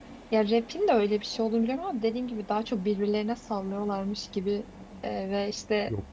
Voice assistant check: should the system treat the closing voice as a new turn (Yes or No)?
No